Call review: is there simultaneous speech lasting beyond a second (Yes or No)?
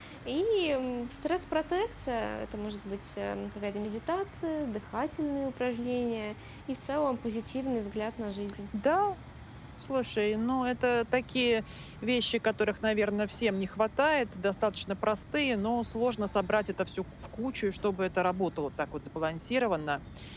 No